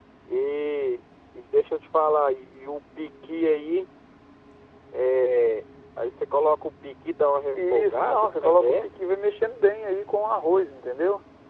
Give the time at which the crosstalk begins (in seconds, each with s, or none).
7.5 s